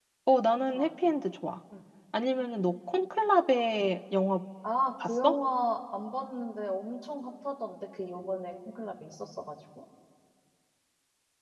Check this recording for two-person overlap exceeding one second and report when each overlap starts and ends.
none

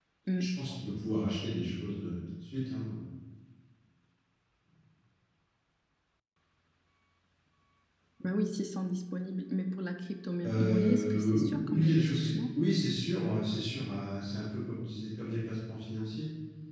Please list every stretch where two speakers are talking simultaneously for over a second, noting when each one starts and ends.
10.4-12.5

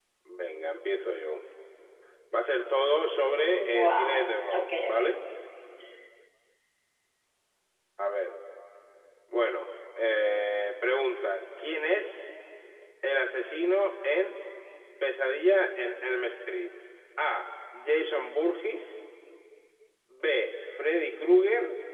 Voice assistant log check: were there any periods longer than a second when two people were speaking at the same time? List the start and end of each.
3.8-5.2

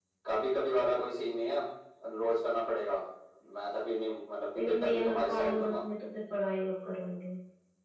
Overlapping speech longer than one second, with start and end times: 4.6-5.8

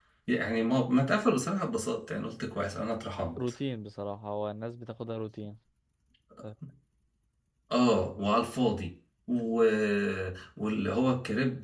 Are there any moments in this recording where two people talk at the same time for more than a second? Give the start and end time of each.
none

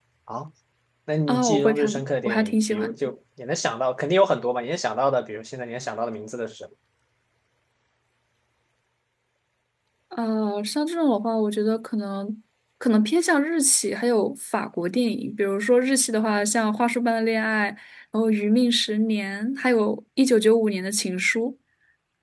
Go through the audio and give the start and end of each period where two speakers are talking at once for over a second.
1.3-2.9

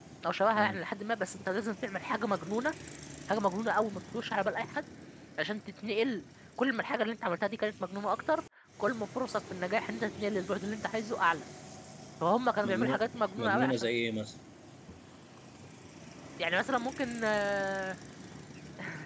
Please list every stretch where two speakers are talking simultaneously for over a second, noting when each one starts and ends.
12.6-13.9

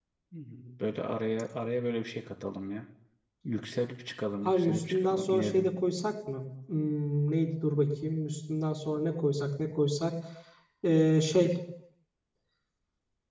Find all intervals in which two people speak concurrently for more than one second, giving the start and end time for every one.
4.4-5.7

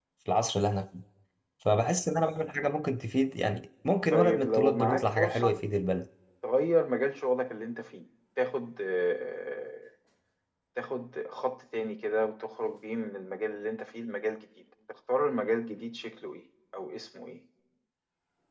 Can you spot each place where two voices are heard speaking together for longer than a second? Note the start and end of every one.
4.1-5.6

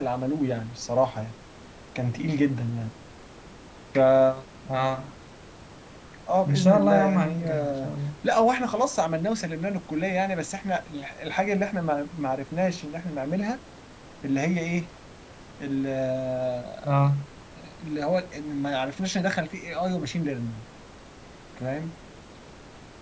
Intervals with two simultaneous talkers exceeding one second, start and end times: 6.4-7.9

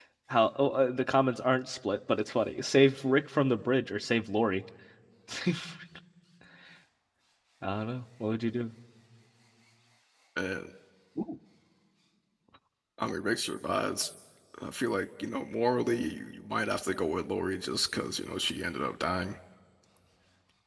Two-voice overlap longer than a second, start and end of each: none

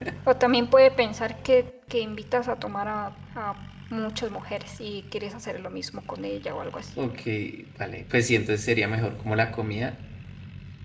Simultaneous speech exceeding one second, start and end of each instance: none

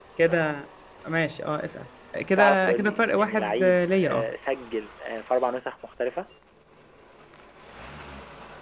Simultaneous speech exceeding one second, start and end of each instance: 2.4-4.3

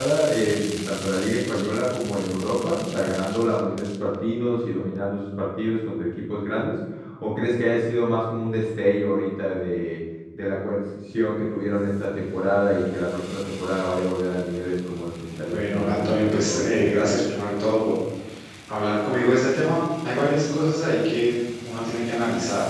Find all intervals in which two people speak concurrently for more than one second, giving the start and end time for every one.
15.5-17.1

